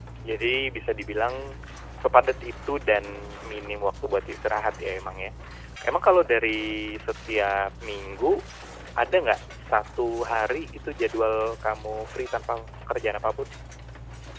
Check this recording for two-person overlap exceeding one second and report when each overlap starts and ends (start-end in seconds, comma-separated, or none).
none